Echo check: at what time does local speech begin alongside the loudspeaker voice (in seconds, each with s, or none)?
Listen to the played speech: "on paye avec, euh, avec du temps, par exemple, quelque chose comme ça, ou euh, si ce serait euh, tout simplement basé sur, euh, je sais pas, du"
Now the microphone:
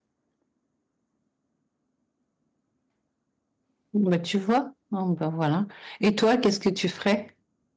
3.9 s